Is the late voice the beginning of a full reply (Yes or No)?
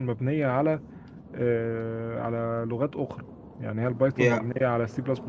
No